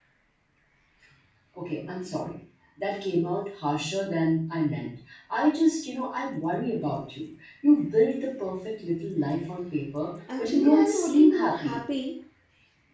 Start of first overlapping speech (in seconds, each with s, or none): 10.3 s